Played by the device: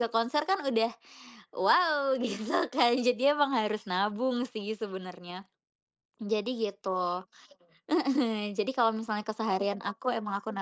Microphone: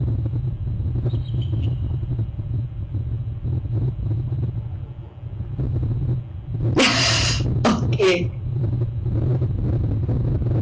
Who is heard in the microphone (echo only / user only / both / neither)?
user only